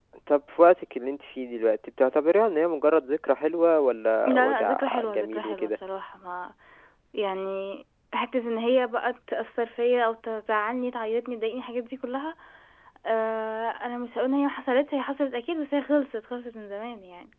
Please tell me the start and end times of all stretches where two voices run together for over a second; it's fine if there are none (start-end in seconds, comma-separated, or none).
4.3-5.8